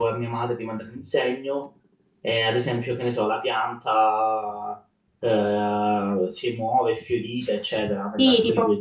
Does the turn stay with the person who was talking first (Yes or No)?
No